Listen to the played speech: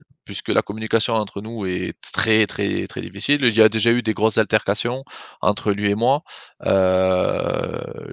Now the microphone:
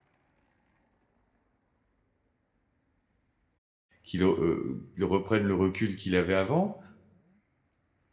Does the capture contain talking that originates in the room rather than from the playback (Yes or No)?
Yes